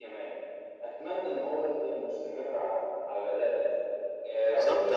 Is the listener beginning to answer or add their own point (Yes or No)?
Yes